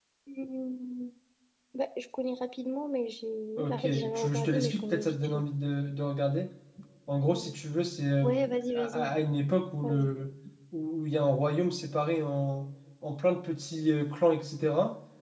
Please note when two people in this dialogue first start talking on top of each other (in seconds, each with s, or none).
3.6 s